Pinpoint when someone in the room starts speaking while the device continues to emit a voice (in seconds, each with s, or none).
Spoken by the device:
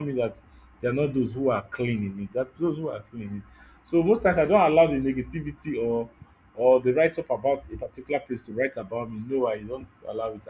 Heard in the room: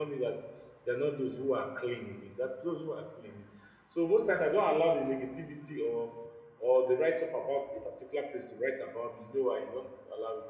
none